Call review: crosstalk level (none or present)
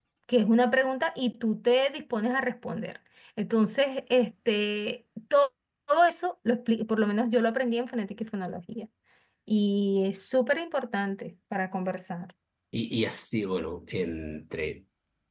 none